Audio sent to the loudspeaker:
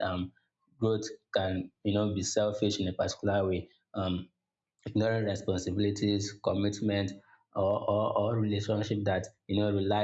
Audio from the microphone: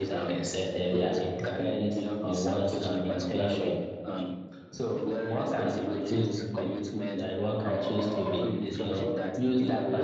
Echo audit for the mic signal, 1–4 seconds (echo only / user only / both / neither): both